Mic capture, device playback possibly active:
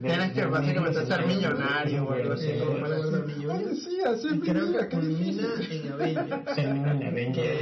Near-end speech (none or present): present